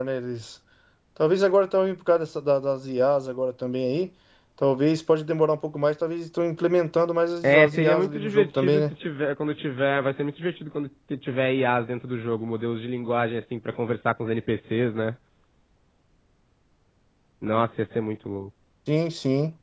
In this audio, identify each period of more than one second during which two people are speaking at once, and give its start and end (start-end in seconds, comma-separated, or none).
7.4-8.8